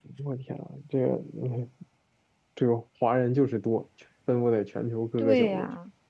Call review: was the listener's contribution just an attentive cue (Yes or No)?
No